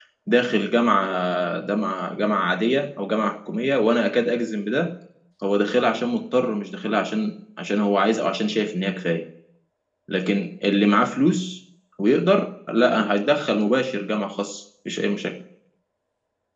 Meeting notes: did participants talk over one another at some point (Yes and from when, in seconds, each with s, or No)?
No